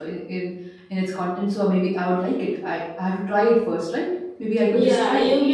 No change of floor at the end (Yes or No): No